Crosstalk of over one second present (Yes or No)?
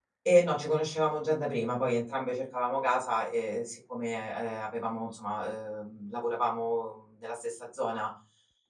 No